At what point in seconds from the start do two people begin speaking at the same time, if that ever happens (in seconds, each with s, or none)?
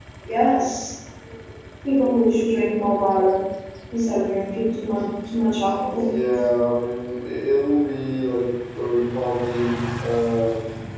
none